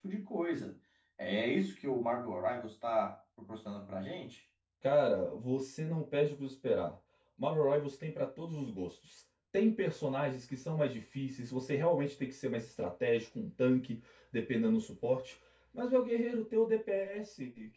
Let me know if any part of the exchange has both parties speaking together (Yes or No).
No